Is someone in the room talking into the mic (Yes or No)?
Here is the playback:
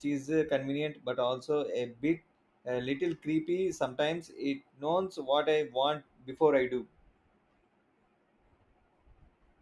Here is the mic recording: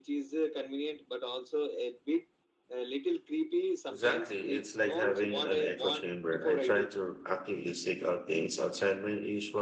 Yes